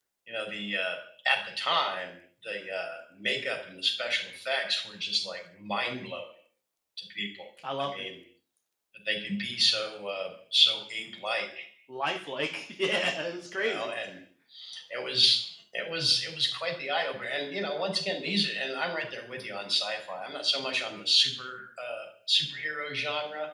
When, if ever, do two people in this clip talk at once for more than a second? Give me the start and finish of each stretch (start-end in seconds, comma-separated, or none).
none